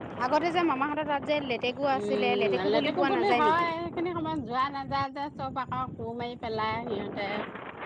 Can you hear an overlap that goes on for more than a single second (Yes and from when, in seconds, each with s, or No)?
Yes, from 1.9 s